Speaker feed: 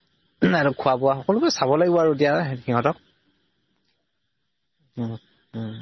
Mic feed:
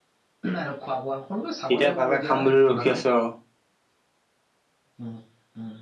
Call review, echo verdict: present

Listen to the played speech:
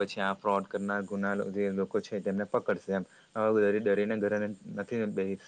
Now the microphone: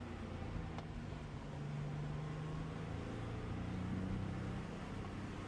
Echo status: none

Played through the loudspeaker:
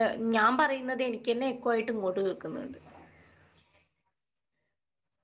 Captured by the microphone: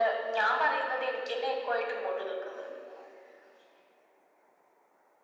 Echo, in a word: present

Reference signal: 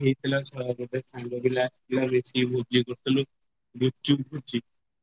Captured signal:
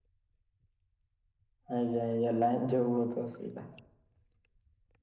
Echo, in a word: none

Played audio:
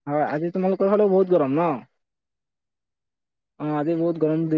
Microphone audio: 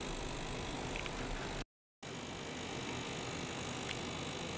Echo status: none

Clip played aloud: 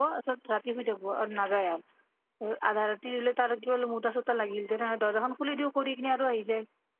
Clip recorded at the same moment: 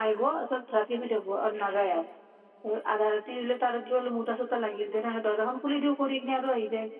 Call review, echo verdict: present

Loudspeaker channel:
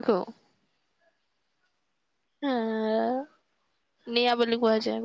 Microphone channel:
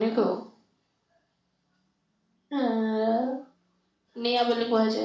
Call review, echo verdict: present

